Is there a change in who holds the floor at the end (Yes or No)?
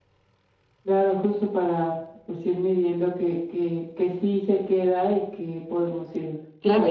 Yes